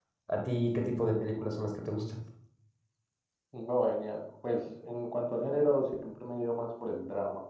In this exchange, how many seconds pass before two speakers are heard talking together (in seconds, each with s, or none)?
none